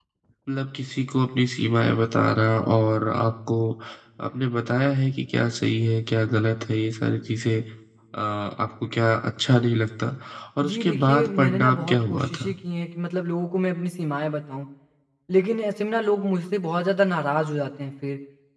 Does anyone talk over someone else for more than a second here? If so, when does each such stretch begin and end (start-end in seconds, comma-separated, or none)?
10.6-12.5